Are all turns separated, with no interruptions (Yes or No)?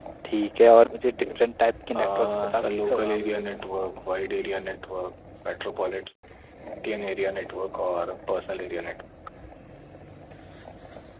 No